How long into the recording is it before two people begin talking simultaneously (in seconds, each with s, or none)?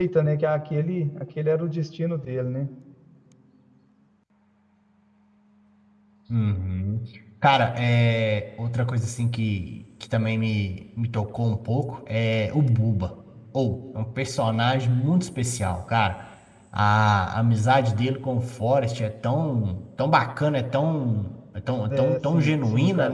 21.9 s